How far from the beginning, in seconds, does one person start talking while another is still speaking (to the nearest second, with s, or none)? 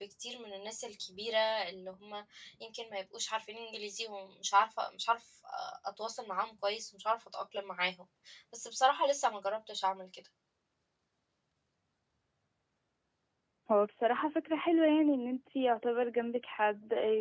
none